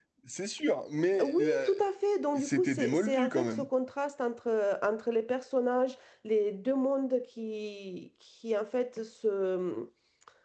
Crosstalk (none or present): present